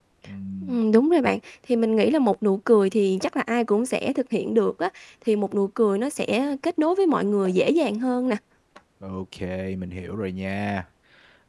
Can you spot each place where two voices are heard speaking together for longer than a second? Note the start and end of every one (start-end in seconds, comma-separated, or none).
none